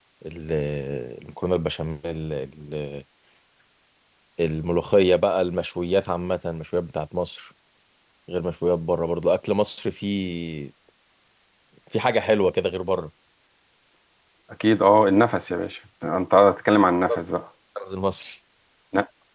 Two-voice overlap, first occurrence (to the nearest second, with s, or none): none